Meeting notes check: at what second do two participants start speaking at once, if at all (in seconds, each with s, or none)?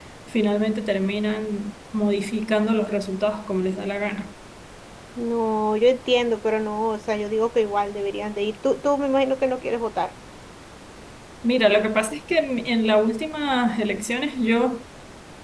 none